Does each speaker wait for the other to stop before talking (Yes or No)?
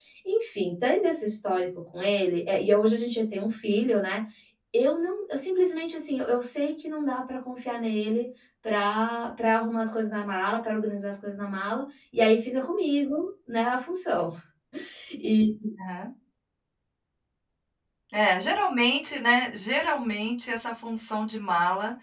Yes